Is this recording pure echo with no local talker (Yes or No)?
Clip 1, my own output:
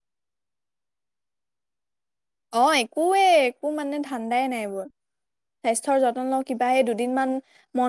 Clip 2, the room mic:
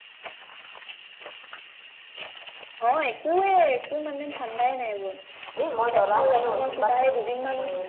No